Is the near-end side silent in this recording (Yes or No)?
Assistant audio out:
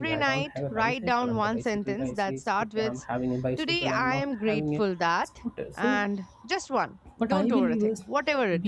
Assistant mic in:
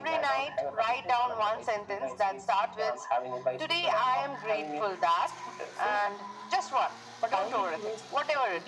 Yes